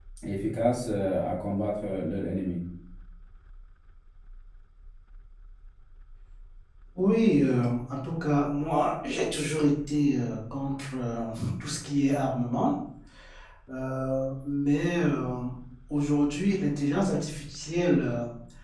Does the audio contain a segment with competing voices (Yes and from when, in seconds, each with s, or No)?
No